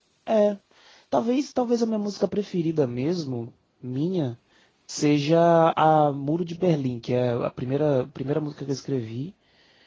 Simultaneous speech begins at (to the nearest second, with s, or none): none